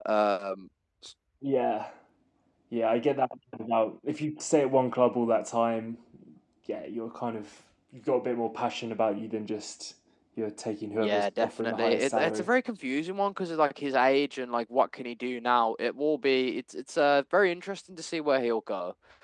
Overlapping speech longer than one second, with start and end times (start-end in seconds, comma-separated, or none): 10.9-12.5